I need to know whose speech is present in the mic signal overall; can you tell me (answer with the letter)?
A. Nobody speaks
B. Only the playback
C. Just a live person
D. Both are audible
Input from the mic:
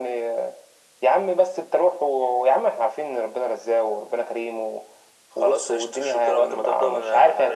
B